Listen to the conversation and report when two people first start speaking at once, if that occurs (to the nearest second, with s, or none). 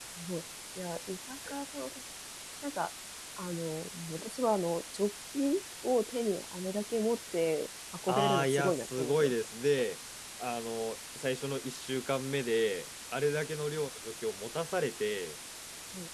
8 s